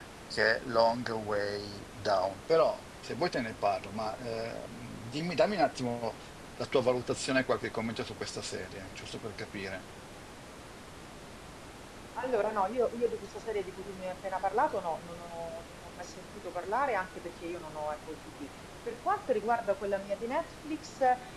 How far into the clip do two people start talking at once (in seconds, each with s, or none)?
none